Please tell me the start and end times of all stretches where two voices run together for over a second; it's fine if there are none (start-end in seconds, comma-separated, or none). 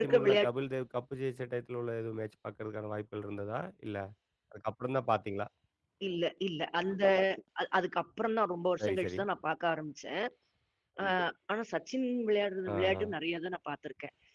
none